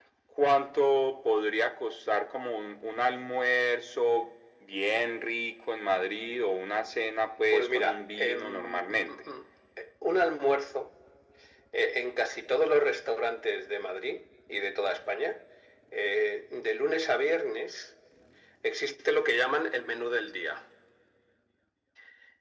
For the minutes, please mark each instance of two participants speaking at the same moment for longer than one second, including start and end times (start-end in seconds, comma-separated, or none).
7.5-9.2